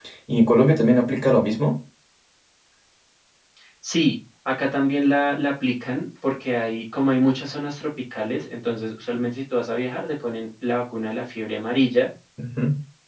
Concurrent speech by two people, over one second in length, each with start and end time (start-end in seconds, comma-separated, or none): none